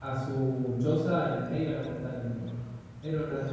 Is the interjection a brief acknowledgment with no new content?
Yes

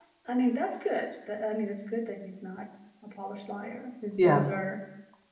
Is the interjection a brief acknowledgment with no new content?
Yes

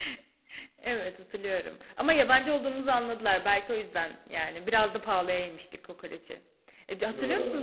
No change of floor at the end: Yes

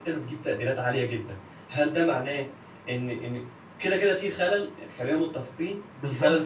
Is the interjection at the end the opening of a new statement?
Yes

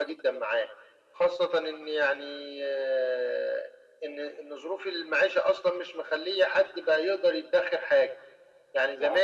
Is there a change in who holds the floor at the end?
No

